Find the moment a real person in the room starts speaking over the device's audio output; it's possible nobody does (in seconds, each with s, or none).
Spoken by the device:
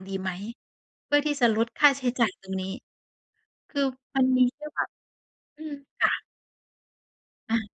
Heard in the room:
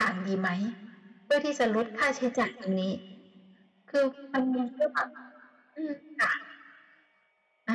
none